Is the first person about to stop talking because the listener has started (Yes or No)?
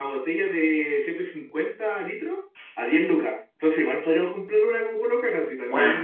Yes